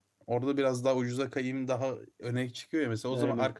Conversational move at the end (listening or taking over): listening